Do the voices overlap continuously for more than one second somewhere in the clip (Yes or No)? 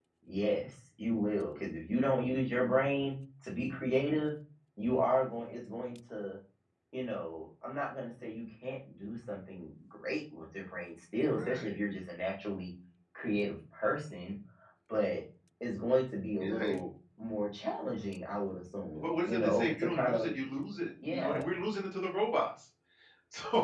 Yes